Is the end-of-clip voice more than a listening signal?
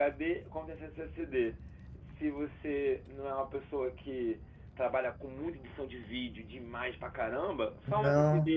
No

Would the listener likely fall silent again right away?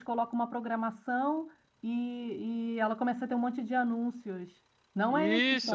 No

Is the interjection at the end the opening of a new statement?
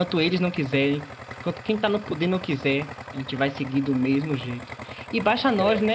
No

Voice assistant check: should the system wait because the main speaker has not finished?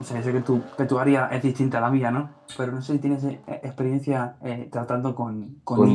No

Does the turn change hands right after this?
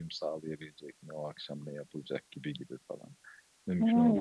No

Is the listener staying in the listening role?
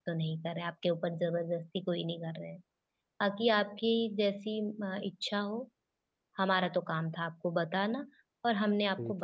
Yes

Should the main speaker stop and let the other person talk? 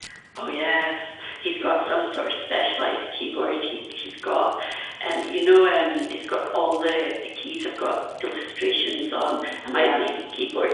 No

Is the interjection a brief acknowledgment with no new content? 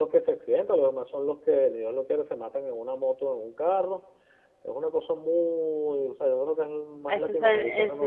No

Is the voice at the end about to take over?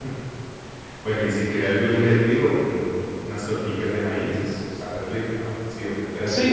Yes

